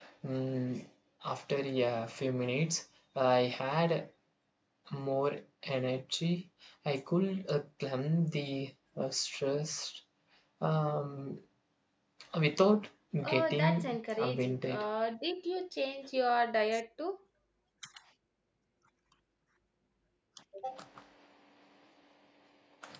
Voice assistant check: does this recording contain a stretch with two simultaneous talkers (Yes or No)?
Yes